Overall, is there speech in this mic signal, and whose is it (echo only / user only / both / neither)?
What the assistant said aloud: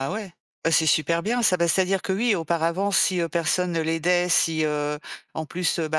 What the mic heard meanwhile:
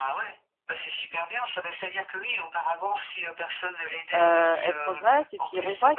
both